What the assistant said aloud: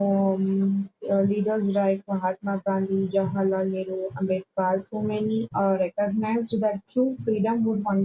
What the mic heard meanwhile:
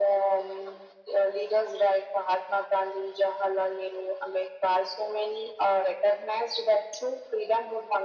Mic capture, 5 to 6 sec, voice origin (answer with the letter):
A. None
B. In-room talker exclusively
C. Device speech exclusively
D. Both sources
C